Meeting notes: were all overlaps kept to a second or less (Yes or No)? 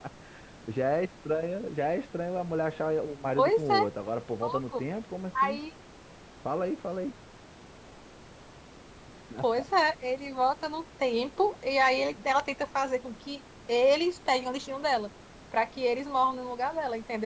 Yes